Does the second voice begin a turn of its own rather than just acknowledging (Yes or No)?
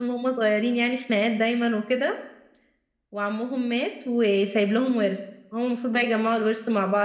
No